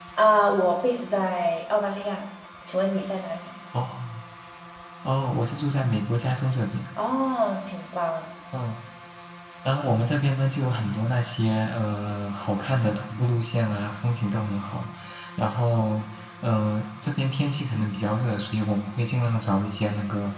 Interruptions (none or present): none